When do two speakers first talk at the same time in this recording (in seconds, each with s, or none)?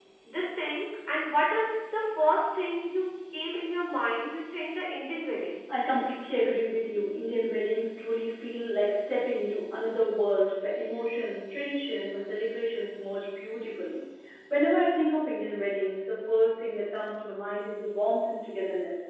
none